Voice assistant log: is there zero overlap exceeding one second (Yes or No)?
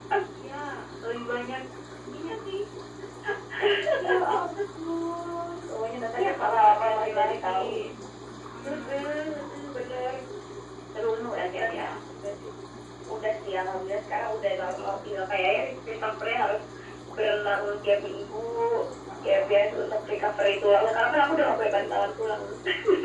No